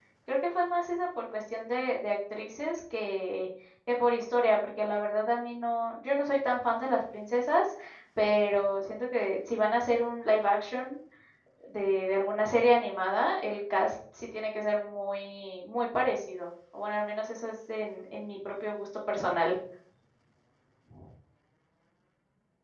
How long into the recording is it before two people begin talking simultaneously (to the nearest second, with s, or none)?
none